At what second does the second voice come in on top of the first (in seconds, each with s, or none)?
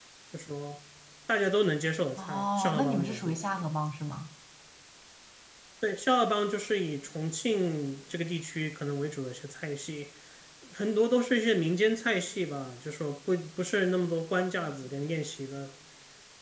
2.2 s